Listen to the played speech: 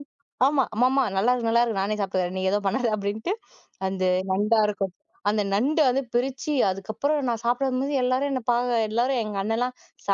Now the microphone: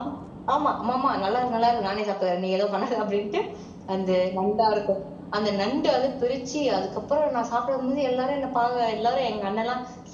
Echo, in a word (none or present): present